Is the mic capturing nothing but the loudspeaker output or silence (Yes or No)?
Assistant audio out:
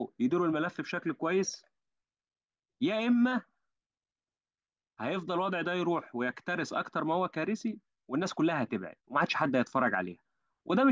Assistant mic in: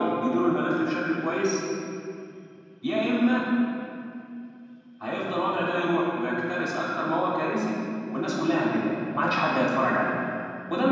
Yes